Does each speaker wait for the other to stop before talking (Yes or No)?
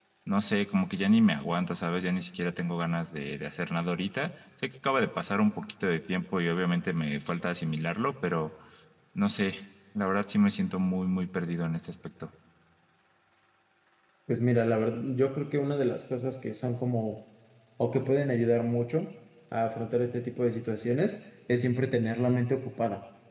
Yes